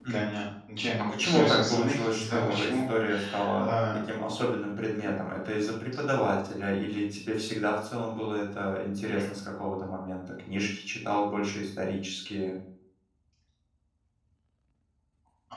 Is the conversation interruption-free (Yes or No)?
No